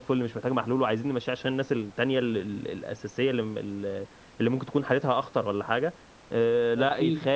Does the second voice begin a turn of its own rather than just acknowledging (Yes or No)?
No